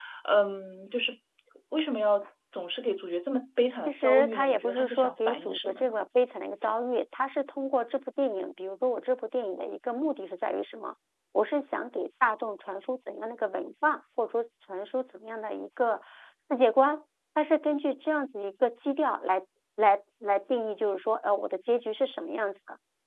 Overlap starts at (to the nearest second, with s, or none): 4 s